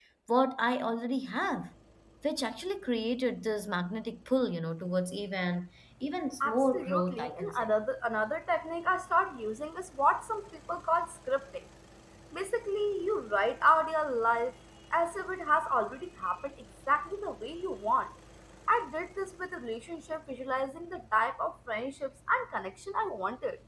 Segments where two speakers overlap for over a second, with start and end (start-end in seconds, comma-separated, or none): 6.4-7.7